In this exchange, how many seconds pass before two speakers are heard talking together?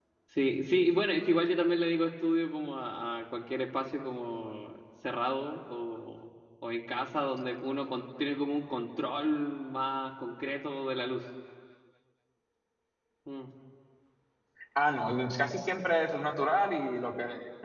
none

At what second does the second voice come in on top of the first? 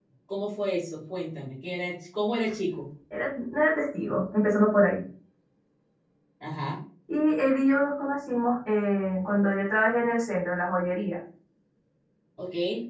none

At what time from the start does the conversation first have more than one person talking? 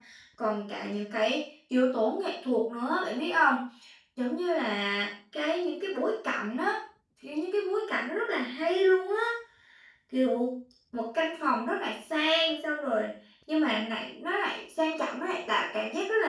none

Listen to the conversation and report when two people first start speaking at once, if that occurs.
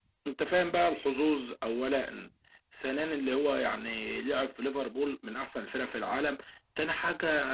none

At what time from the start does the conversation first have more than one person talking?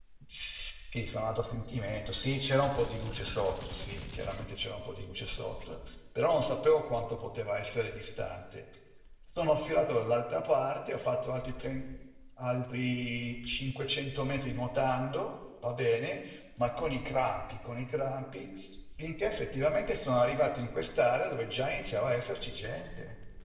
none

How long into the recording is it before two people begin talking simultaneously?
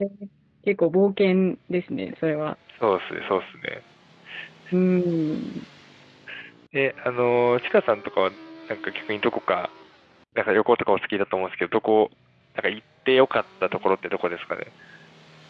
none

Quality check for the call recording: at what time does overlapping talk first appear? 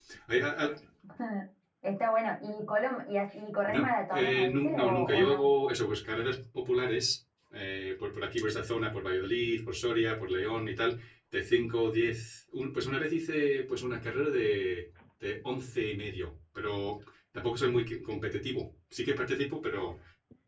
4 s

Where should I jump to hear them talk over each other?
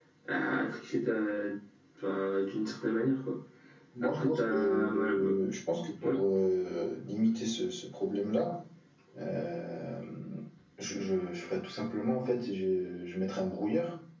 4 s

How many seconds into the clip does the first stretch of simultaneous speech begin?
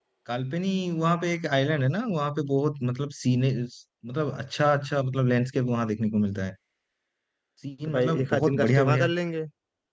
8 s

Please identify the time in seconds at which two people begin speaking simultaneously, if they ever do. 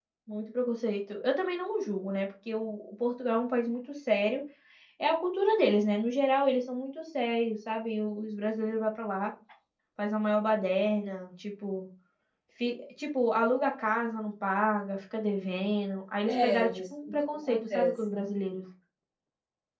16 s

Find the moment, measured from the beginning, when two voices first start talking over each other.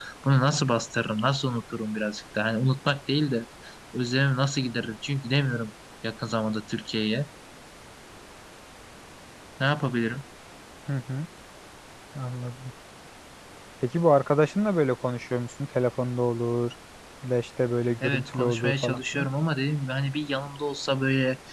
18 s

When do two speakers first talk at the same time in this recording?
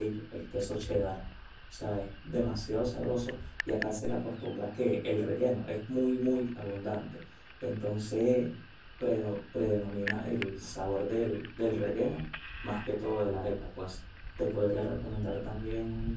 none

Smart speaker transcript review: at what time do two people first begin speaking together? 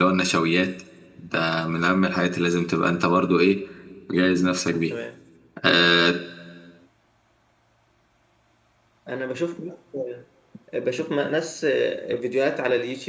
none

